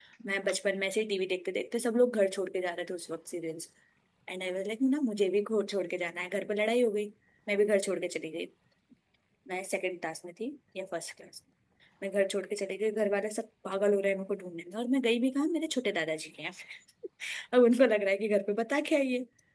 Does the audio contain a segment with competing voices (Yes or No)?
No